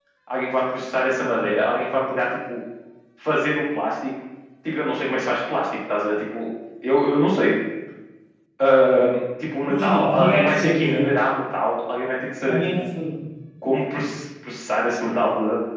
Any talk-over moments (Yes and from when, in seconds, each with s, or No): Yes, from 9.7 s